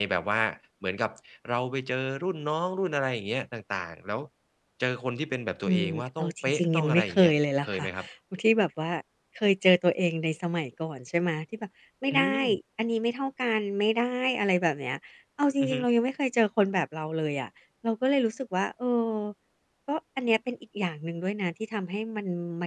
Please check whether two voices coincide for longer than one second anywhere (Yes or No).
Yes